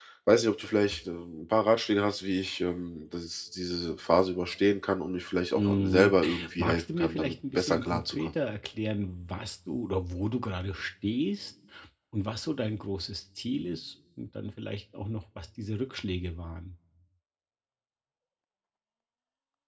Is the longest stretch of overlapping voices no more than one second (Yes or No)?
No